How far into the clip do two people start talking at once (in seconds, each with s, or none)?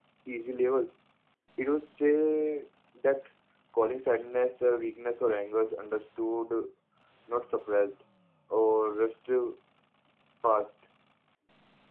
none